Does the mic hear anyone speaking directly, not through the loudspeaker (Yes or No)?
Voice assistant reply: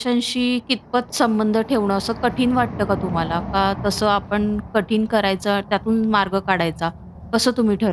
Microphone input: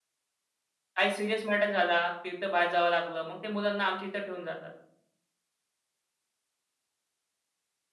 Yes